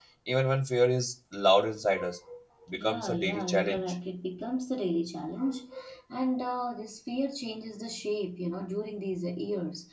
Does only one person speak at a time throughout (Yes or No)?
No